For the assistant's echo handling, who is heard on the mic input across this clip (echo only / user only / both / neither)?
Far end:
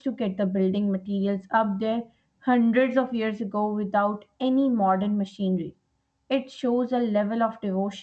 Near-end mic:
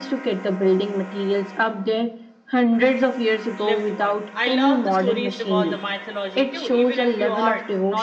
both